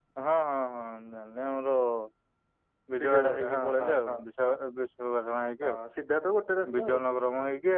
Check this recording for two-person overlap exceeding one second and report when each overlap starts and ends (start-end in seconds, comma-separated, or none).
3.0-4.5